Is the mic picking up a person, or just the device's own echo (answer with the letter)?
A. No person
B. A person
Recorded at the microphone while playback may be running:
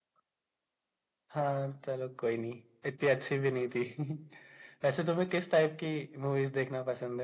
A